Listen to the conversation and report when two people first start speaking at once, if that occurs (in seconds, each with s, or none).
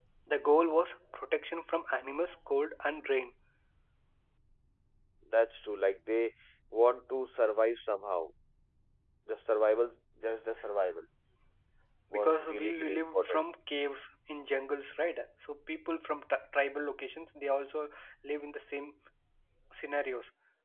12.1 s